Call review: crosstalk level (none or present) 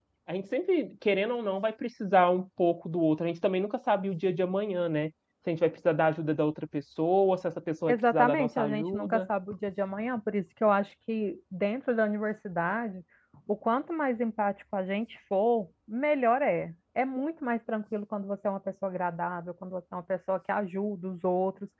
present